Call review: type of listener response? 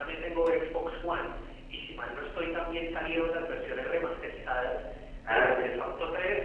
listening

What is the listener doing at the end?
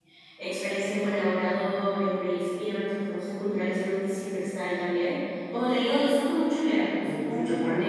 taking over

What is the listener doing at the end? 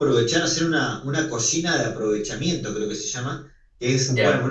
listening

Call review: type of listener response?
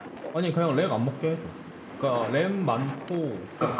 taking over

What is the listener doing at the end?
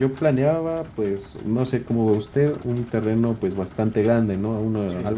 listening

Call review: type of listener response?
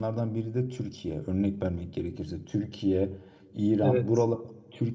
listening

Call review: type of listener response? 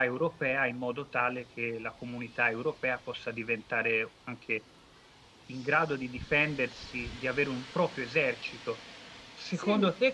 listening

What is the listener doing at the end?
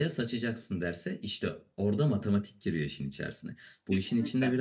listening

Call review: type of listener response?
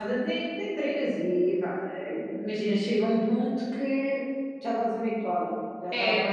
taking over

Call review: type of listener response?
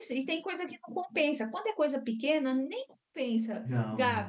listening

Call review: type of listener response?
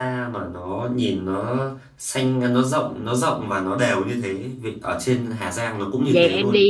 taking over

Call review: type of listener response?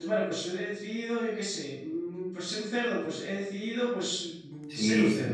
taking over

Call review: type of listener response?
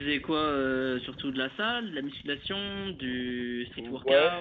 taking over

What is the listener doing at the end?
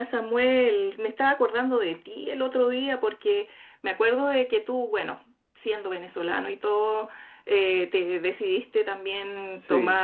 listening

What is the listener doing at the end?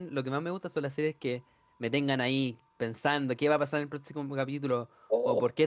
listening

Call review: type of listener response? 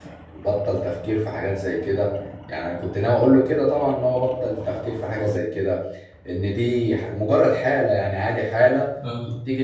listening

